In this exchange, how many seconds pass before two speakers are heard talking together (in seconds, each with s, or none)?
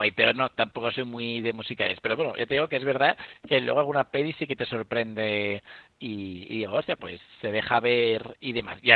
none